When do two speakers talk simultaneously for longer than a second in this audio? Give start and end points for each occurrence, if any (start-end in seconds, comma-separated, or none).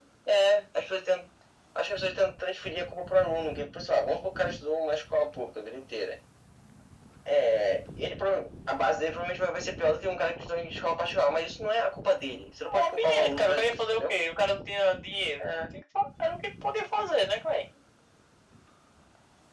12.6-14.1